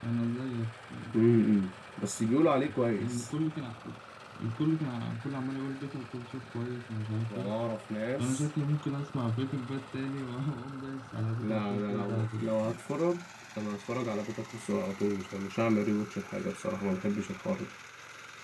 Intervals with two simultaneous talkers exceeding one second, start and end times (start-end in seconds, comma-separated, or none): 11.4-12.8